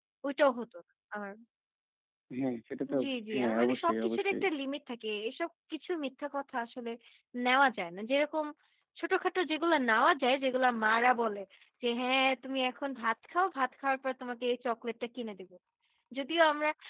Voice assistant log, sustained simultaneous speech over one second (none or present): present